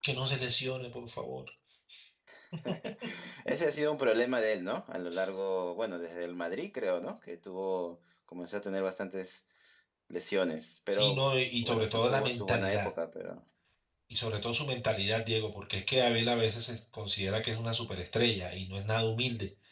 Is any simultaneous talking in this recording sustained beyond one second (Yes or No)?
Yes